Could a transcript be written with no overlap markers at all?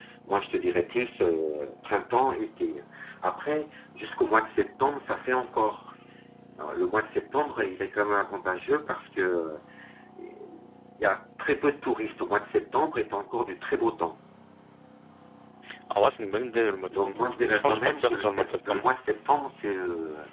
No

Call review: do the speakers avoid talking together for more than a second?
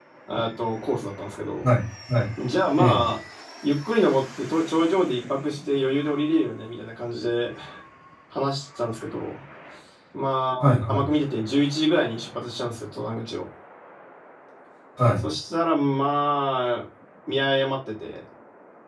Yes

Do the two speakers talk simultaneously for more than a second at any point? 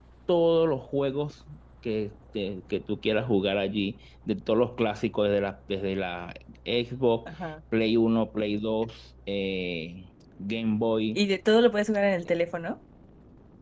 No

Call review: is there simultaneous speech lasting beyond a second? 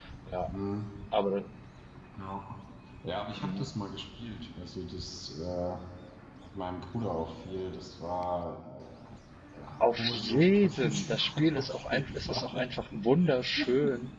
Yes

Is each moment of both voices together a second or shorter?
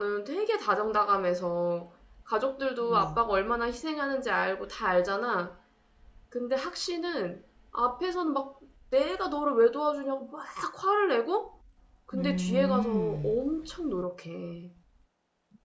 No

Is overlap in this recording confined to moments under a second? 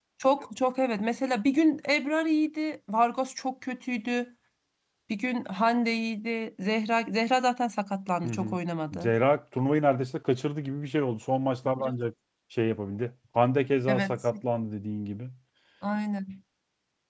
Yes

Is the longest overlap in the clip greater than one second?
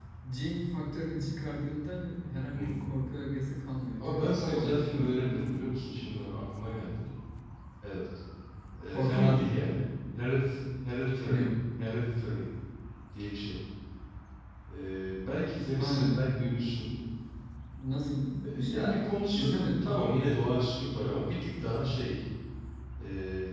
Yes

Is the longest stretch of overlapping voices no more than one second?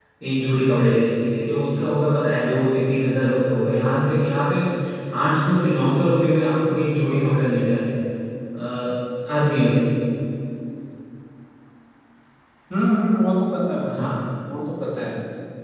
Yes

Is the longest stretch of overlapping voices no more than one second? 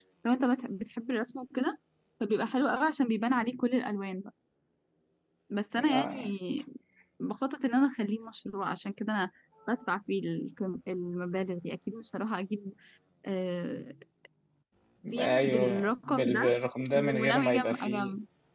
No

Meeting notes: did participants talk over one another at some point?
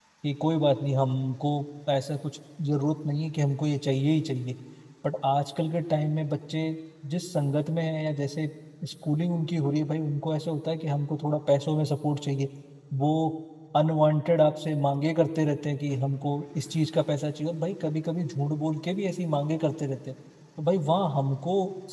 No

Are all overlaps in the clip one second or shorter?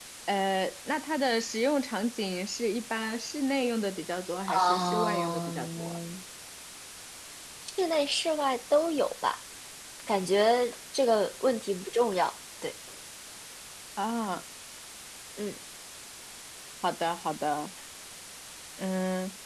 No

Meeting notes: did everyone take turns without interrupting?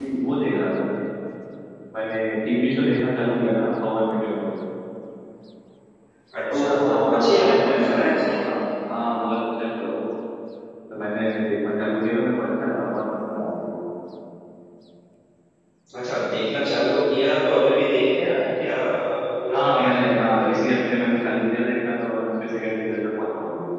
No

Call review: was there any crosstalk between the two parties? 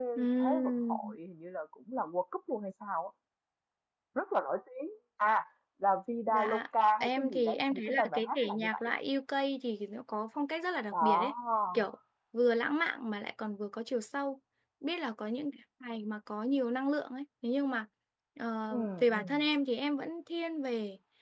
Yes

